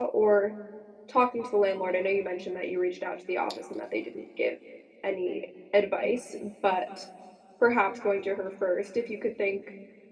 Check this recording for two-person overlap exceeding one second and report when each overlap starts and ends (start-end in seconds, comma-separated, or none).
none